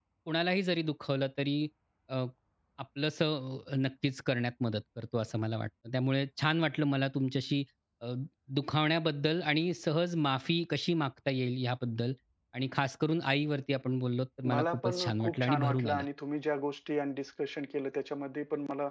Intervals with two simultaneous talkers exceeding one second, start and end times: 14.5-16.0

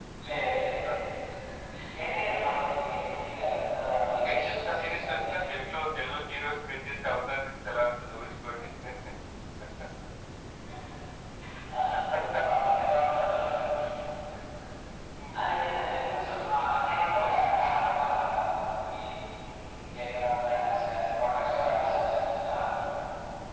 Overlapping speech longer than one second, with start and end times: 4.1-5.3

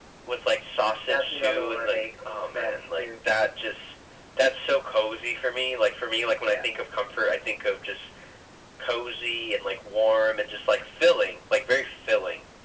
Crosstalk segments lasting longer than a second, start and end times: 1.1-3.0

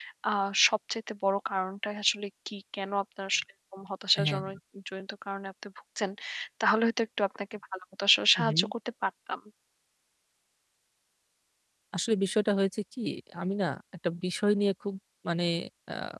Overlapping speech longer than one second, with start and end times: none

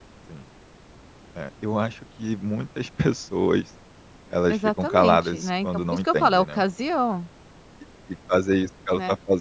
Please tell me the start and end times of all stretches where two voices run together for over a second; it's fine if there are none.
4.5-6.6

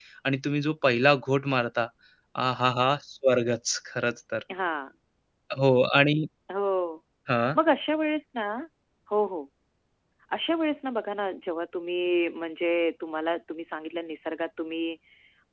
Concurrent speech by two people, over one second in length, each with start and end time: none

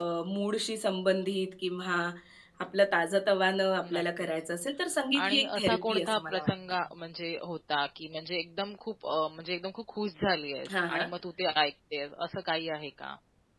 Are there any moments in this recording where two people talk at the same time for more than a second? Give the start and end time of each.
5.2-6.5

